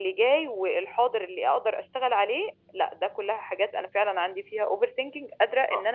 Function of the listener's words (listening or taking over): taking over